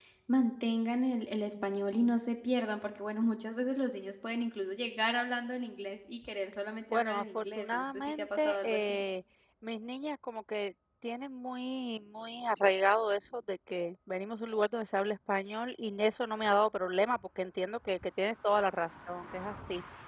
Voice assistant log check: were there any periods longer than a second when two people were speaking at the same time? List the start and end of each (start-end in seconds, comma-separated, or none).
6.9-9.0